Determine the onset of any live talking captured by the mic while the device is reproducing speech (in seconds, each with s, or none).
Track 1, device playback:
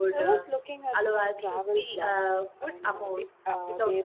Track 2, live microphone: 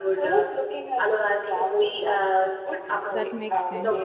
3.1 s